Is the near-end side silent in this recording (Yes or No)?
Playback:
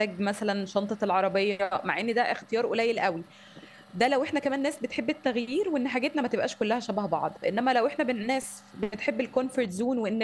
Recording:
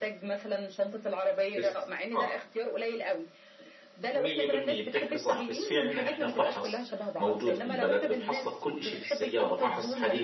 No